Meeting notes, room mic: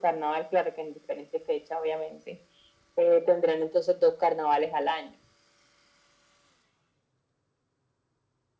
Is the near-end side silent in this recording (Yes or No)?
Yes